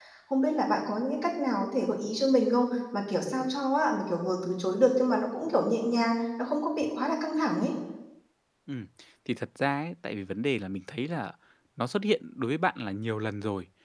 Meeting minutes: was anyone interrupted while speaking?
No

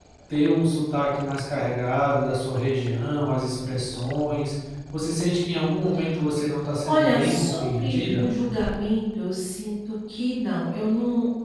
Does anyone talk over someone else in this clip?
Yes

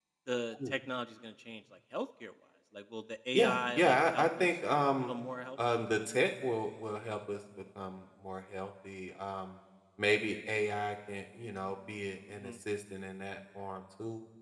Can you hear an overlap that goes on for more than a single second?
Yes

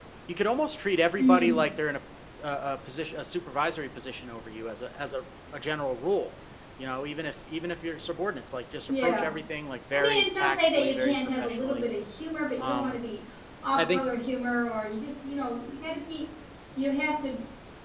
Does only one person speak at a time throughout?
No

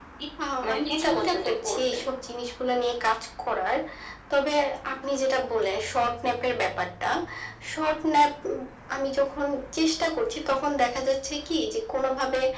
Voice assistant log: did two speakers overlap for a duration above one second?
Yes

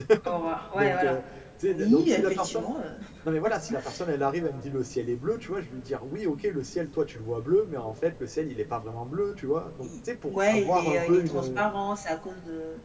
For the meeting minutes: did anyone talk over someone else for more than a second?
Yes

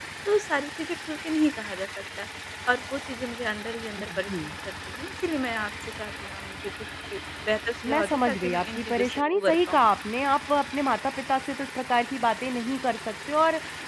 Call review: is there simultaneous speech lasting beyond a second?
Yes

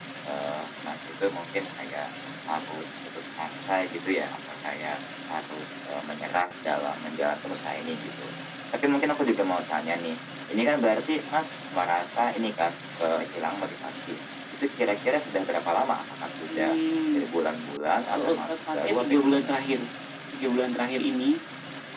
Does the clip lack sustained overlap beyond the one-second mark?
No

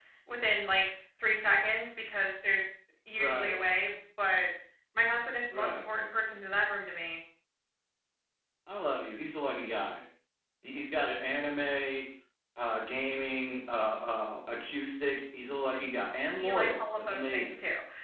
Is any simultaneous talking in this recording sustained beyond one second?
Yes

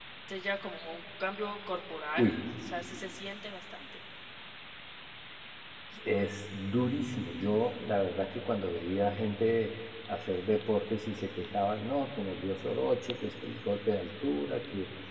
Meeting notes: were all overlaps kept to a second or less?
Yes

